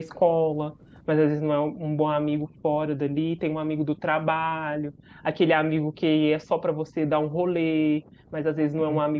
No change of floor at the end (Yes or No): Yes